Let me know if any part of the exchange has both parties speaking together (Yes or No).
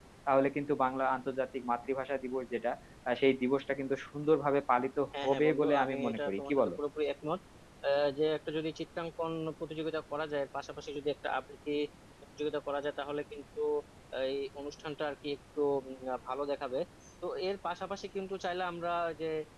Yes